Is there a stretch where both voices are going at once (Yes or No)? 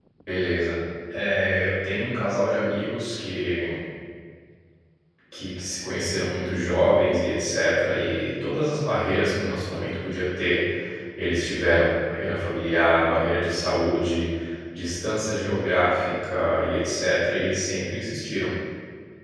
No